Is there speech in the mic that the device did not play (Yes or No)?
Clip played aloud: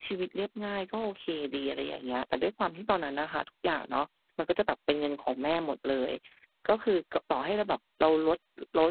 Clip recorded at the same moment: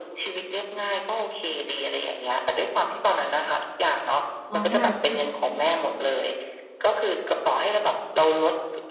Yes